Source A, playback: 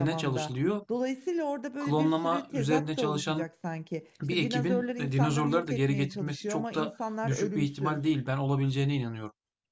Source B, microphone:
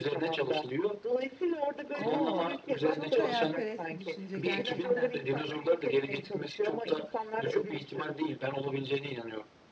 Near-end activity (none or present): present